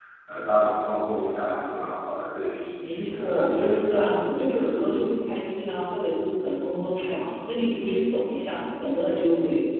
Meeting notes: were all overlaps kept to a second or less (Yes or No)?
No